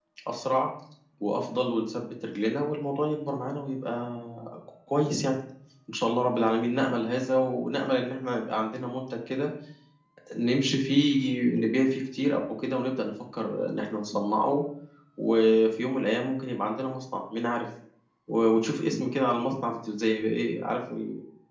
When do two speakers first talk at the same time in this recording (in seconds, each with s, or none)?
none